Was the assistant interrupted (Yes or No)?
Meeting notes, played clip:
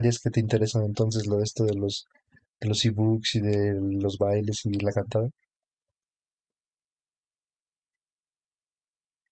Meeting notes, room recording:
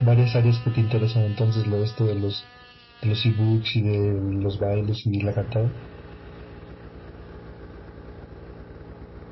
No